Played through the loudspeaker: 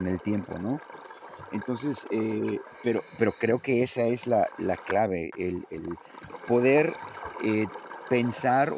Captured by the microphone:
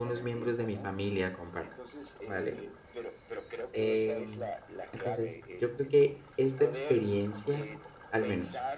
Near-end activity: present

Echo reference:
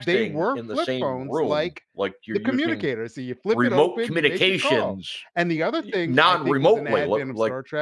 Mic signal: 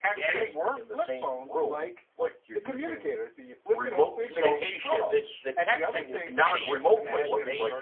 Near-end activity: present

